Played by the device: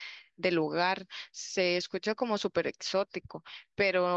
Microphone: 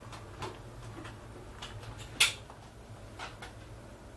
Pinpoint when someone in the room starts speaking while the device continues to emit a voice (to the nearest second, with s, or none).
none